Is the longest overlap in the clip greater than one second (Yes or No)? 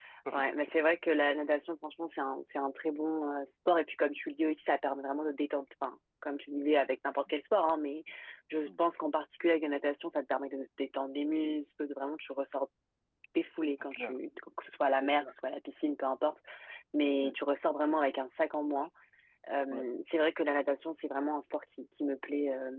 No